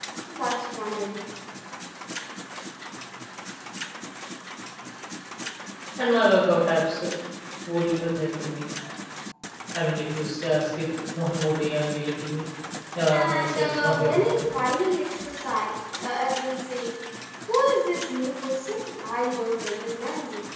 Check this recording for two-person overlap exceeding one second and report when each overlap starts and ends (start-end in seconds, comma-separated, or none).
13.1-14.5